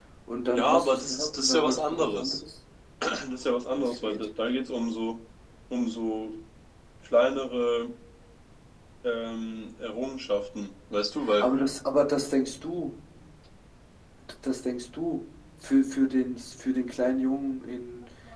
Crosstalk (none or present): present